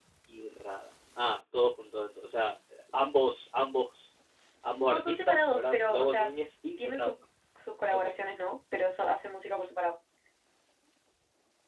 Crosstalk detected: Yes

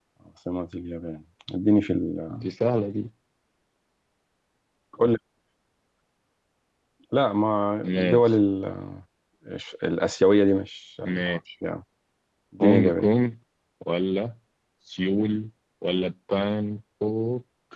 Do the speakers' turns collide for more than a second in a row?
No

